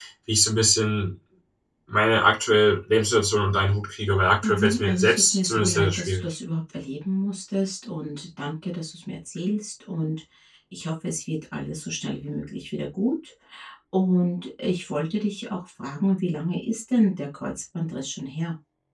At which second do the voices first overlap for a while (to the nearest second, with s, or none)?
4 s